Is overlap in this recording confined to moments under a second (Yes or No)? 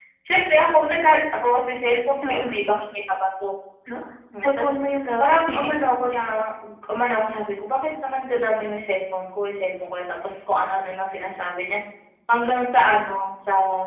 Yes